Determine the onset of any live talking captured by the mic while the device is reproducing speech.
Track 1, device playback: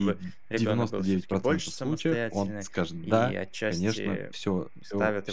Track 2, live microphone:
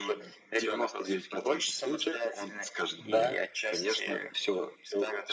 3 s

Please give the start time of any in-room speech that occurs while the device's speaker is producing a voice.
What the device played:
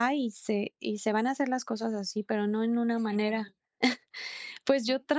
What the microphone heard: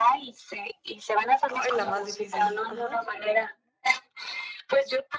1 s

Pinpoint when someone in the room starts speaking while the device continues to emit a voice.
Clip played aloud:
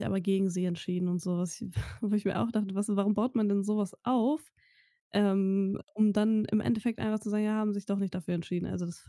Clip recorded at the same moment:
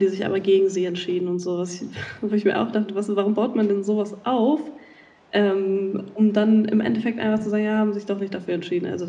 none

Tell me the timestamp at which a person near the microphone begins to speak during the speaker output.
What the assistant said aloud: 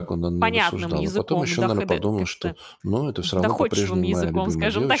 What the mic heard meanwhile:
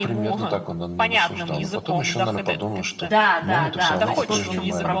3 s

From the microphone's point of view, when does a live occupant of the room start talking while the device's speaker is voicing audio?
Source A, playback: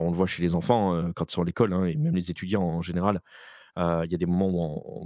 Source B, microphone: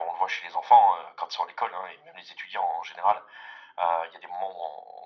none

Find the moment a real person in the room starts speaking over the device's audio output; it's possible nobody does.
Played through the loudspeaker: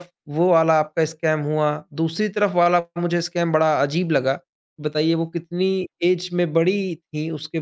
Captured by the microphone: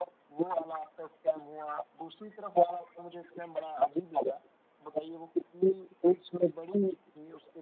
none

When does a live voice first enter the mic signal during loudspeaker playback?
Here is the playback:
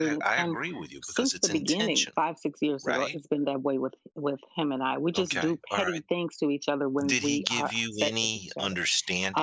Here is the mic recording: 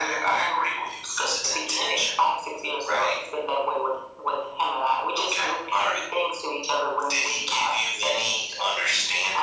none

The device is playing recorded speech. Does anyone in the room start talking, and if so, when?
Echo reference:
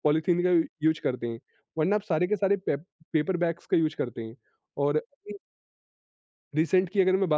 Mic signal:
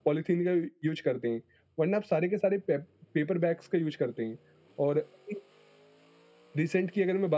none

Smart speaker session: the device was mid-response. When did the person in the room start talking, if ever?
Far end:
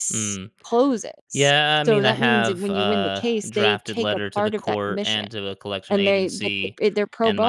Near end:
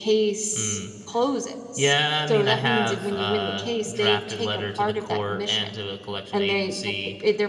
none

